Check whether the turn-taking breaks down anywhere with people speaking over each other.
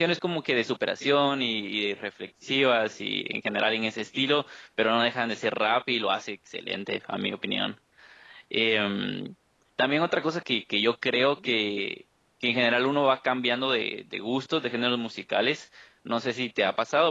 No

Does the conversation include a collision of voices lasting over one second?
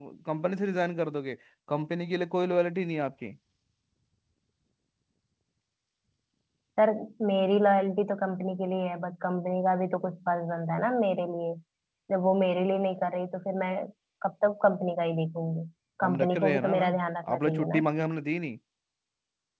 Yes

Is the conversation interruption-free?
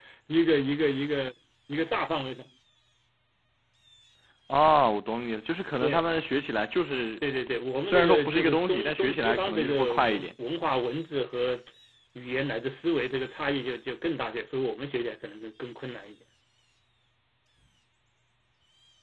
No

